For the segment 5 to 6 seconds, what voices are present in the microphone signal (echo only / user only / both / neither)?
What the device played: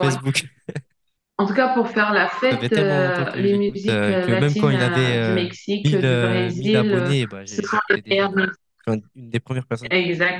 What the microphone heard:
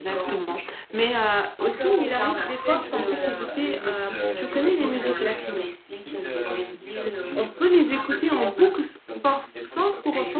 both